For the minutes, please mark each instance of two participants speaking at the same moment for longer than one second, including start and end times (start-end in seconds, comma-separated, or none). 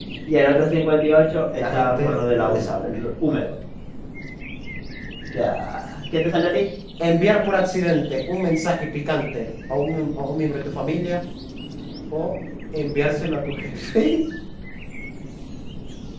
1.6-3.0